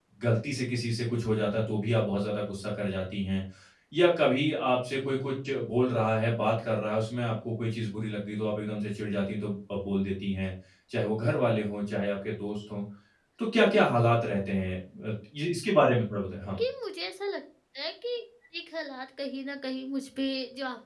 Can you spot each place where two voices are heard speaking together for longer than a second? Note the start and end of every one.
none

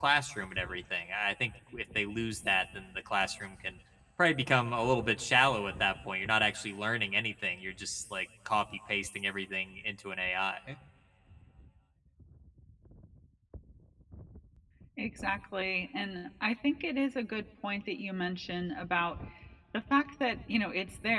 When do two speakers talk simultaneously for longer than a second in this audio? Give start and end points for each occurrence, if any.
none

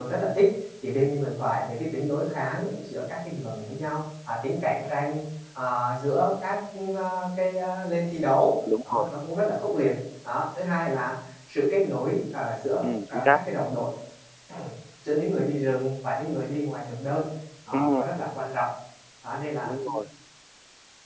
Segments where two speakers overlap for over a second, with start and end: none

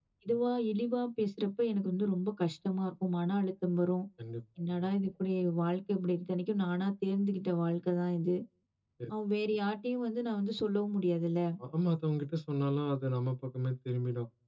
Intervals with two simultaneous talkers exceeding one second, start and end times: none

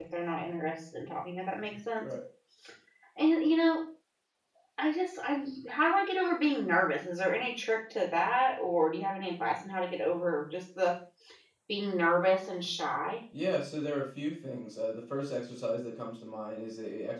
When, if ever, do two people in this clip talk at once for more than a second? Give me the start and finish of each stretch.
none

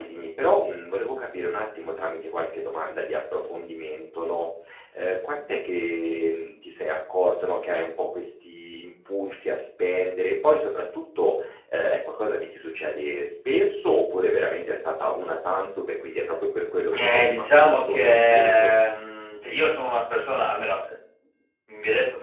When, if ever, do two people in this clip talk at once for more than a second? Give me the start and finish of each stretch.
17.0-18.7

